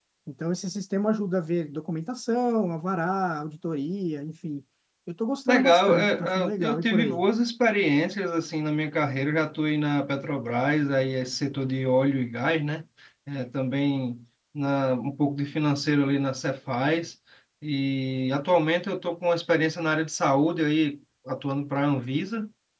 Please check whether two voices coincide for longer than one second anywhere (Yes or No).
Yes